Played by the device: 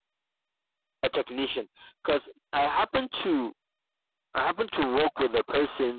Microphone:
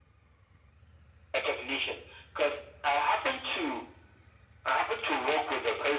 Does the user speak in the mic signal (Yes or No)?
No